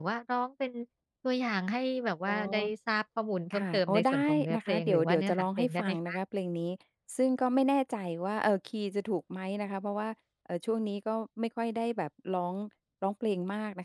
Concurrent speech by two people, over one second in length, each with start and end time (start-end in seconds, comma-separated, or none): 3.6-6.0